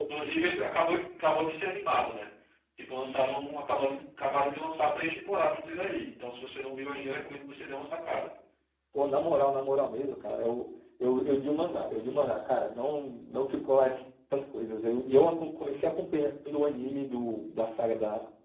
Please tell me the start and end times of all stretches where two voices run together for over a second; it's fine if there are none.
none

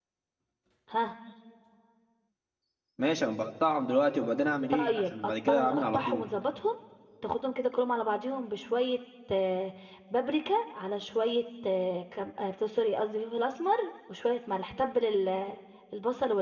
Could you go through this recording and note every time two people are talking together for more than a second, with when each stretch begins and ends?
4.7-6.2

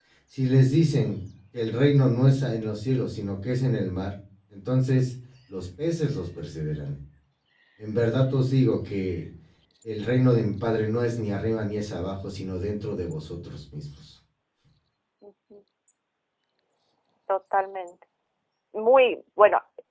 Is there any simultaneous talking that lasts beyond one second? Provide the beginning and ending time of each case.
none

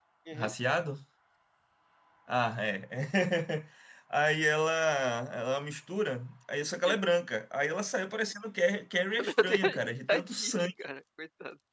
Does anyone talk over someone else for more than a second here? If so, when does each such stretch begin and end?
9.2-10.7

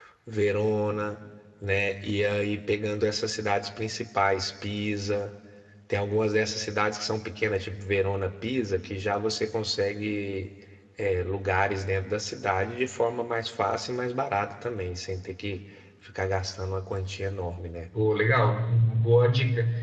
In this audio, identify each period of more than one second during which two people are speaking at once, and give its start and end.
none

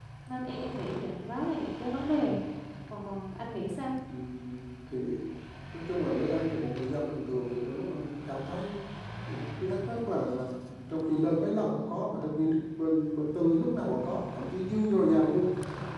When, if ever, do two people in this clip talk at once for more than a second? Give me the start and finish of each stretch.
none

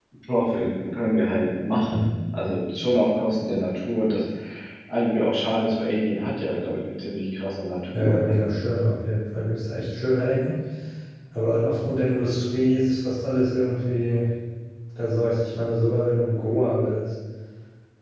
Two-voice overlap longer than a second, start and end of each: none

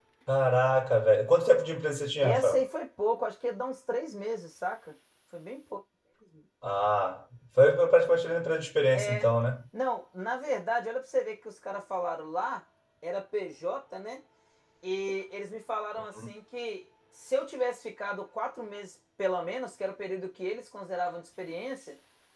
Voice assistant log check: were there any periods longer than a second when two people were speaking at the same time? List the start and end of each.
none

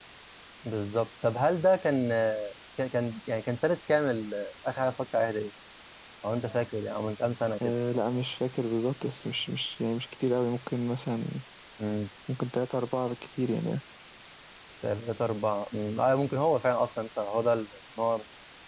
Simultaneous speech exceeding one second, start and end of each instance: none

